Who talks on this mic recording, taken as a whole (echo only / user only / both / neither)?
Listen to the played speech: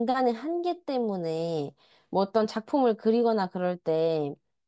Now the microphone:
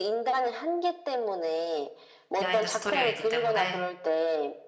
both